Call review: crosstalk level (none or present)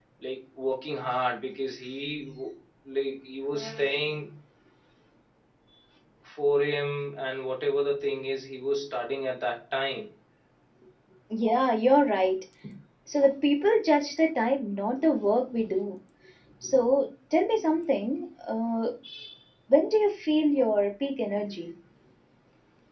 none